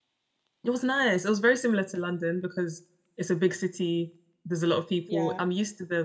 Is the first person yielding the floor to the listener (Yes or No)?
No